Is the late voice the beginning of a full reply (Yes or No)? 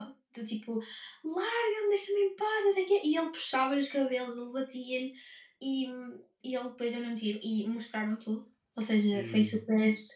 No